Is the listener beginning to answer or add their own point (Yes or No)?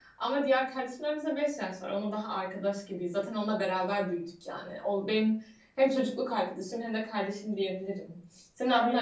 Yes